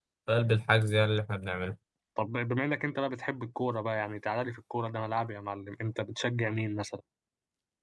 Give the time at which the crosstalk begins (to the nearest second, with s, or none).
none